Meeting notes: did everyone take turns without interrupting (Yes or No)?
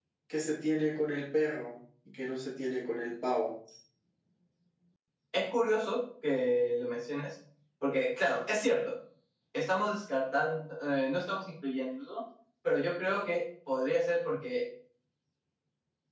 Yes